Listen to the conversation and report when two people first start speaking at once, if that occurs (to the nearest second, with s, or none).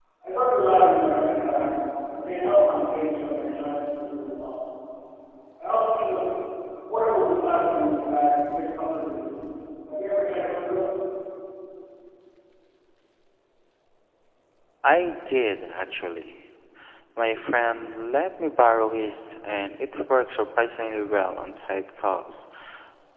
none